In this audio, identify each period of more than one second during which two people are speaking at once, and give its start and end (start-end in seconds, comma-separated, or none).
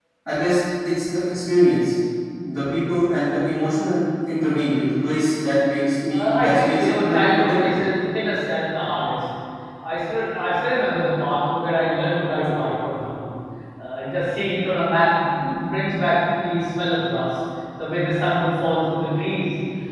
6.1-7.8